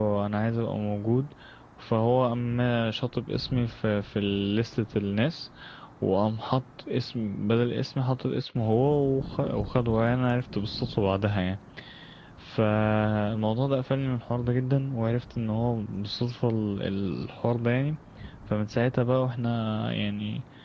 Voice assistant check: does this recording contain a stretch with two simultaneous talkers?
No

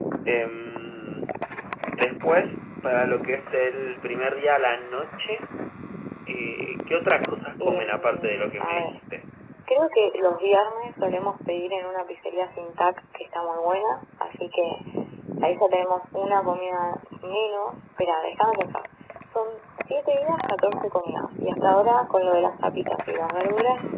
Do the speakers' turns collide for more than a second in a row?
Yes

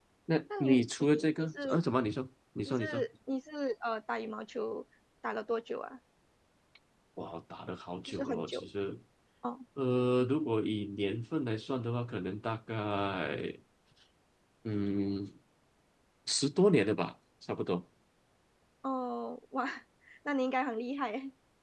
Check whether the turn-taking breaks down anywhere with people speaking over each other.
Yes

